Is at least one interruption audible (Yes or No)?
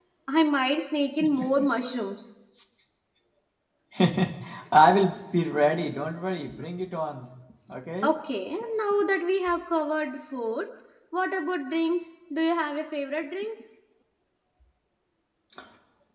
No